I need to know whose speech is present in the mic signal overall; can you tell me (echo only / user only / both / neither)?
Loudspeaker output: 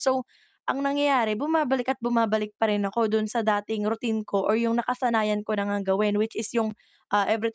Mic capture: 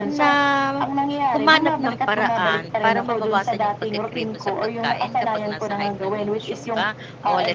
both